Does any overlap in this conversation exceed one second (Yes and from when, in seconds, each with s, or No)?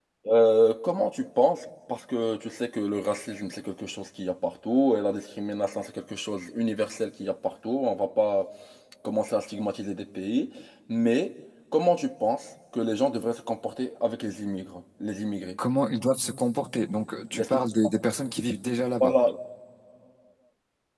No